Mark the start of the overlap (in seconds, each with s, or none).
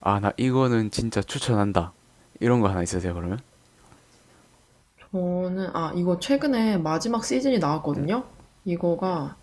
none